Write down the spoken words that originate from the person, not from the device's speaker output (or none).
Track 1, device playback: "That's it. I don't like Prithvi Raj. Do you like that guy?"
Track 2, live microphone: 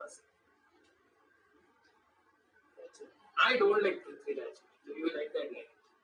none